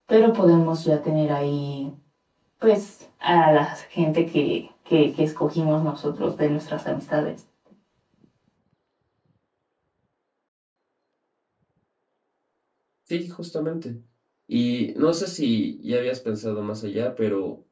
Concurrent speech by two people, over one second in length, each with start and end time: none

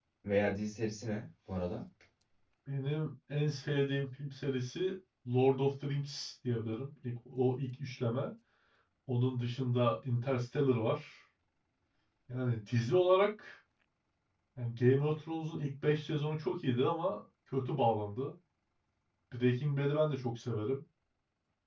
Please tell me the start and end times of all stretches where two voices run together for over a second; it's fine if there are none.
none

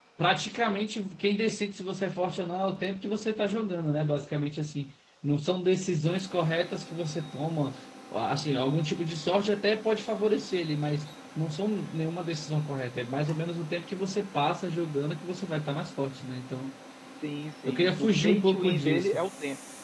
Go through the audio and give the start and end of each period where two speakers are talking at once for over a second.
17.6-19.2

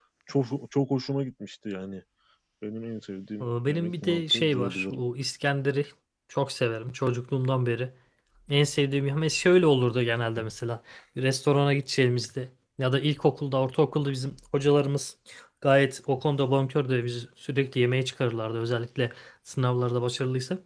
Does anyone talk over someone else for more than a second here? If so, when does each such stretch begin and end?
3.4-5.0

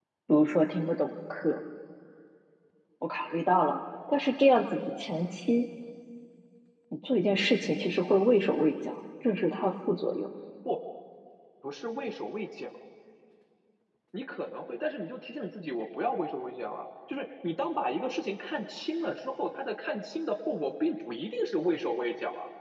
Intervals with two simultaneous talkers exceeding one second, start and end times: none

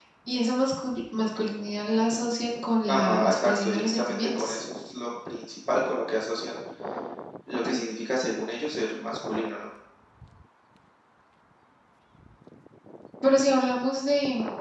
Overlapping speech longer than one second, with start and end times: 2.9-4.6

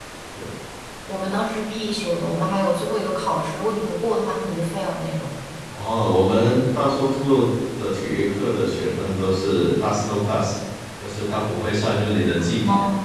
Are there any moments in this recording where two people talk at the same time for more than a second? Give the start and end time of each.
none

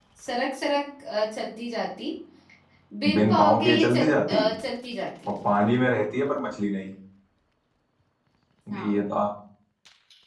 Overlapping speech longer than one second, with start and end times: 3.2-4.4

